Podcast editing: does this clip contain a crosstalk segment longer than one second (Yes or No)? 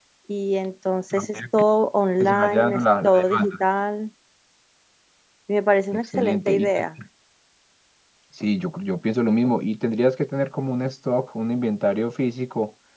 Yes